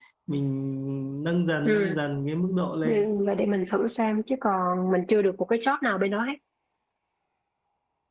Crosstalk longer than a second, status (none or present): none